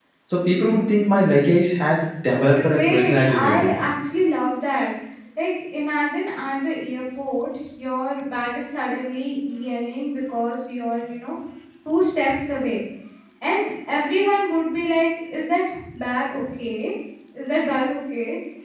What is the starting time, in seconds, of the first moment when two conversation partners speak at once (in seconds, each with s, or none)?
2.5 s